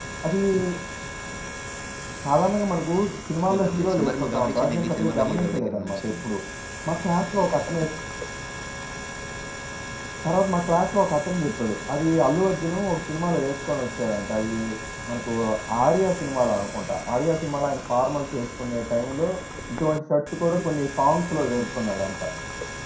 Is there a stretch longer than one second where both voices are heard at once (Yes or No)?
Yes